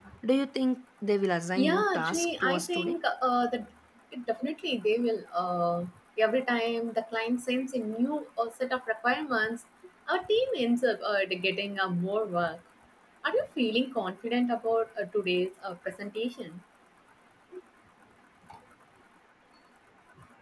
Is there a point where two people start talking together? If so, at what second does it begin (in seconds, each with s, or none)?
1.6 s